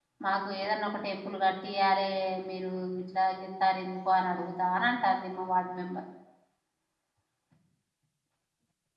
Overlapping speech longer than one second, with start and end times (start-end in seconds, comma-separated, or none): none